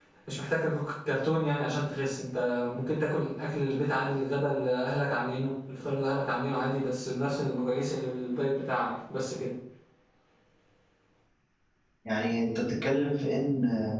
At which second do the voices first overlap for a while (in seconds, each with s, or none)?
none